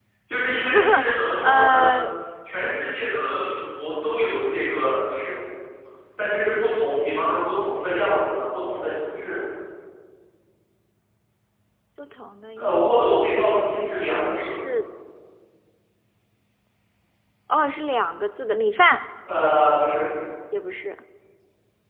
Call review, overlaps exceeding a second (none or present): present